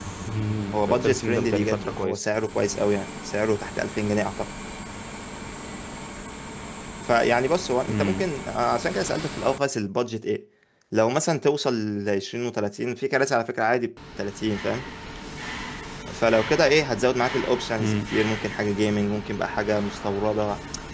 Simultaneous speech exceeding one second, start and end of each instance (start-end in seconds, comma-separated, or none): 0.7-2.3